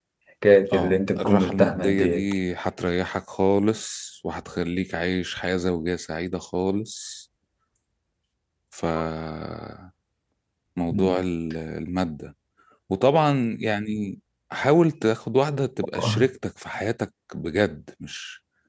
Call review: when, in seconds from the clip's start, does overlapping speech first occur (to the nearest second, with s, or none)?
1 s